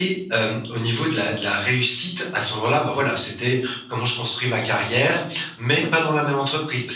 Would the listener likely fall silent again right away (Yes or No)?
Yes